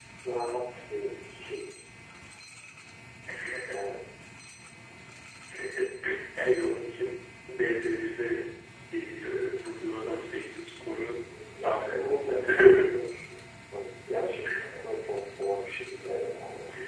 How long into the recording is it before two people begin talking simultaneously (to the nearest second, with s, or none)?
12 s